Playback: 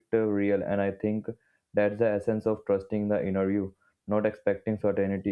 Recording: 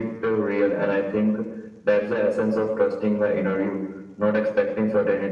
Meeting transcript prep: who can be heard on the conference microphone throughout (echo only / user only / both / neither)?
echo only